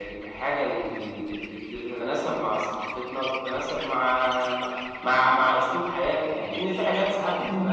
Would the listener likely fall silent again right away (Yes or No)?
Yes